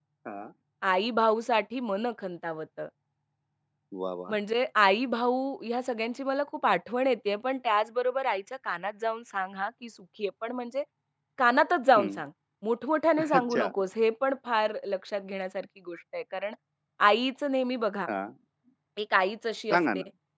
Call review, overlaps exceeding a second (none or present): none